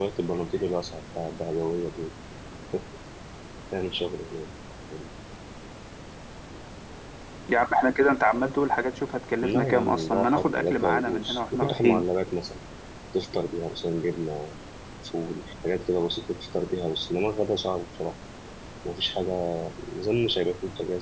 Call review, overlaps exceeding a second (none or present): present